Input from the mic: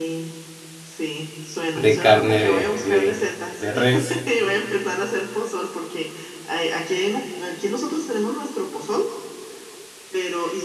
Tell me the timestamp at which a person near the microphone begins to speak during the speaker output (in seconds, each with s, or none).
1.7 s